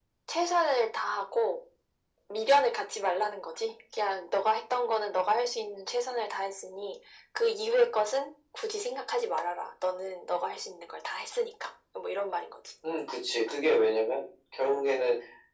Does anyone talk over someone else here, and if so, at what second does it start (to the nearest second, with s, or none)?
none